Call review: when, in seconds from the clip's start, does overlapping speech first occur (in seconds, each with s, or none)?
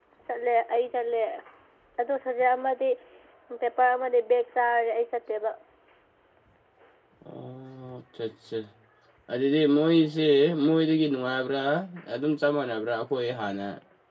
none